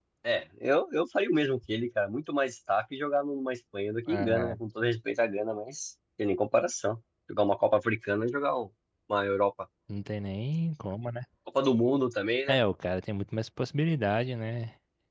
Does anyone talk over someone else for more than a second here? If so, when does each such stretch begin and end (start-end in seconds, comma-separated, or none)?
none